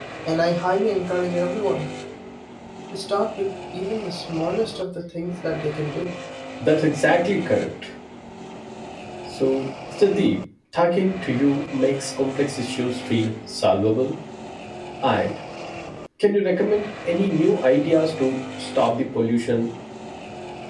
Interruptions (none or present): none